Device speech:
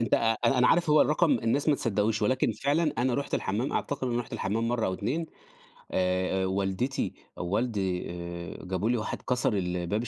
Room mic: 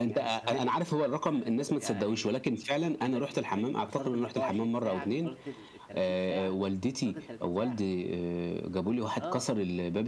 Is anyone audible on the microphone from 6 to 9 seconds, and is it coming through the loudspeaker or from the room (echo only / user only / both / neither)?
both